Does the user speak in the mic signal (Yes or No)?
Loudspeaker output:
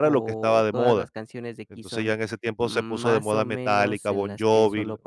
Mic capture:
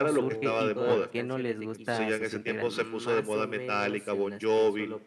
Yes